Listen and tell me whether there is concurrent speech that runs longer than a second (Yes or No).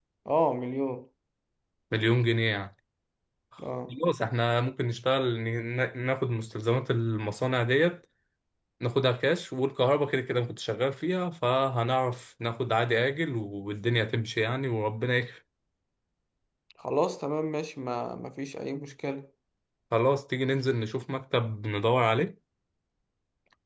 No